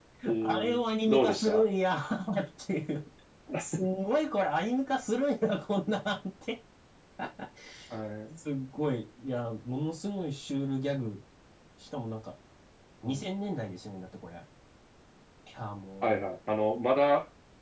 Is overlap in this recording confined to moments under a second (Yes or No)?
No